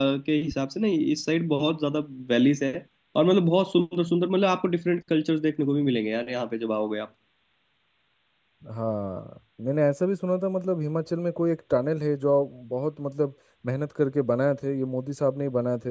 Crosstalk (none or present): none